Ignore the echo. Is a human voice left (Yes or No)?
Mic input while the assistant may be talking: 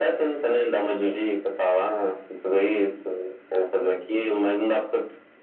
No